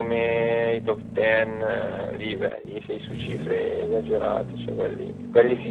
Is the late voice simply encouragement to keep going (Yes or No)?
Yes